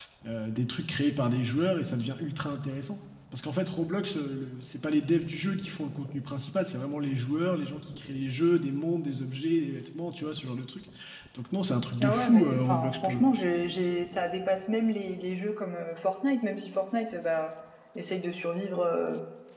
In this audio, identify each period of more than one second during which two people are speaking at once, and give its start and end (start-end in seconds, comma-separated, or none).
12.0-13.2